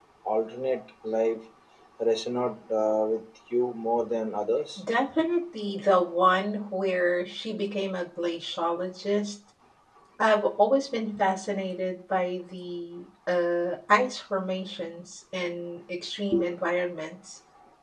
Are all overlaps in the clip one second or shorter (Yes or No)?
Yes